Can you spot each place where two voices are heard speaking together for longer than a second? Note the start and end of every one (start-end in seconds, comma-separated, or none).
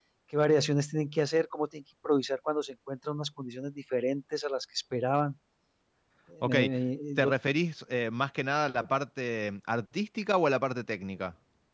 none